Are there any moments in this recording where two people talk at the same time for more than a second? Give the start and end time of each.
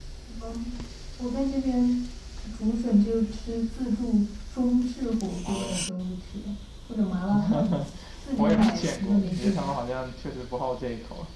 8.4-9.7

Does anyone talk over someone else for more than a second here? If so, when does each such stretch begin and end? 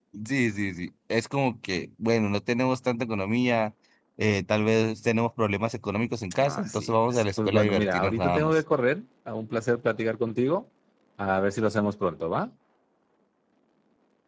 6.4-8.6

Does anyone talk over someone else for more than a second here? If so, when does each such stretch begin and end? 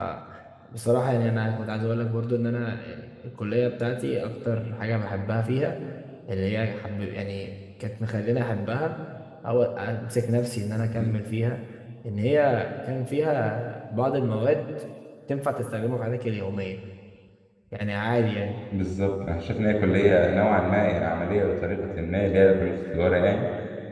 none

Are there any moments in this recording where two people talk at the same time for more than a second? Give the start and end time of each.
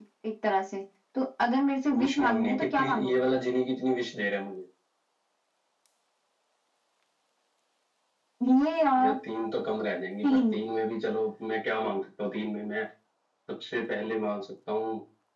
2.0-3.3

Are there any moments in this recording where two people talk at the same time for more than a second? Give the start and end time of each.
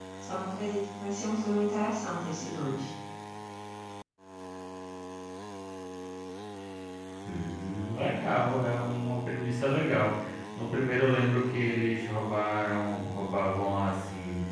none

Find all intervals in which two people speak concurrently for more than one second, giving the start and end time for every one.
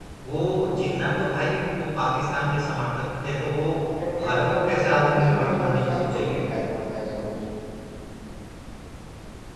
4.2-6.4

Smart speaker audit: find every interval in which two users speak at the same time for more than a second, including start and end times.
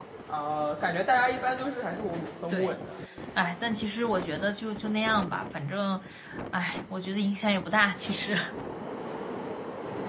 none

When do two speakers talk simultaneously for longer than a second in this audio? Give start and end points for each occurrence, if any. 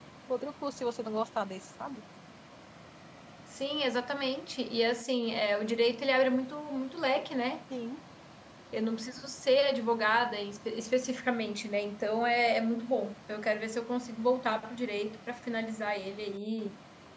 none

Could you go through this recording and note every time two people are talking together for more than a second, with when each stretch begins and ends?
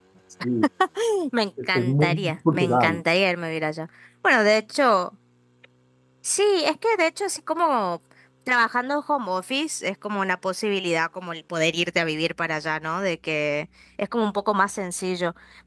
1.7-3.0

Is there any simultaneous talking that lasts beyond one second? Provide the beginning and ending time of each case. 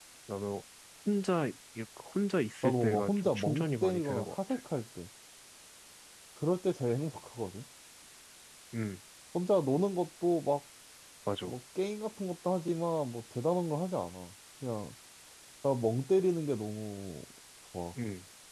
2.6-4.6

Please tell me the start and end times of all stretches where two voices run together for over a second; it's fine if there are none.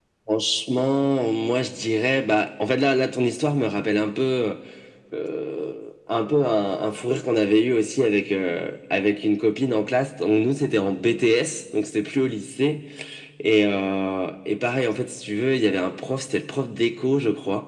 none

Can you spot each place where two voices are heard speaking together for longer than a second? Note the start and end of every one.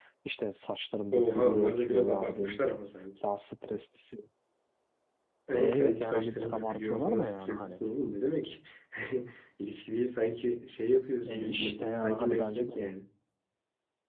1.1-2.6, 5.5-7.8, 11.2-12.7

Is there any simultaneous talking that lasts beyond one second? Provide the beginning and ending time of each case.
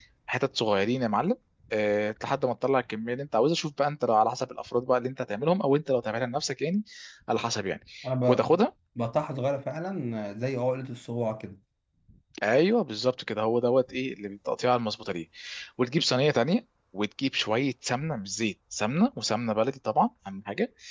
none

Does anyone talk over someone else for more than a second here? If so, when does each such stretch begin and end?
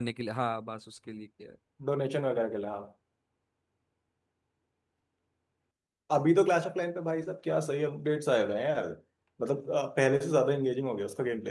none

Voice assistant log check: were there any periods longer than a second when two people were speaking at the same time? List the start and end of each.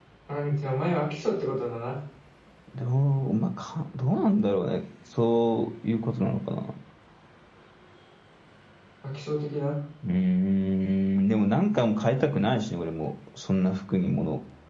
none

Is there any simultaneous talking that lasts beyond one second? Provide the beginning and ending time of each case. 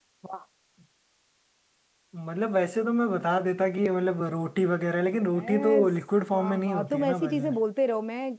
5.1-7.5

